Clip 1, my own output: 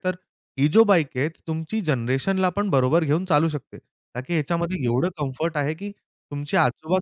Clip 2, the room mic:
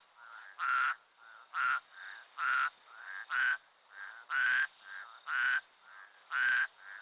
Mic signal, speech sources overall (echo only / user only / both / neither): neither